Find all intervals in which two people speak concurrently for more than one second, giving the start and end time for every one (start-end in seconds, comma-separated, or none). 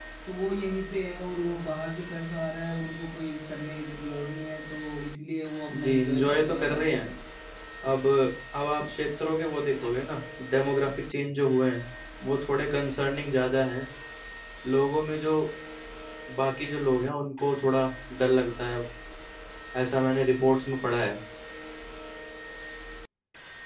5.8-7.0